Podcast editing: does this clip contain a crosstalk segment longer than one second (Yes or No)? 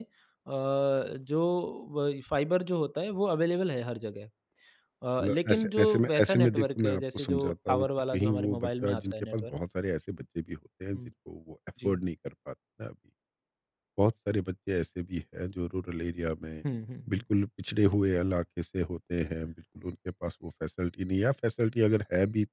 Yes